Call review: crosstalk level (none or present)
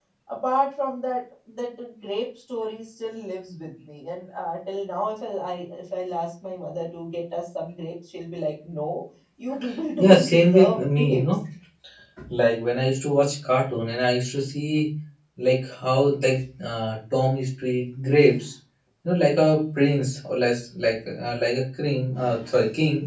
present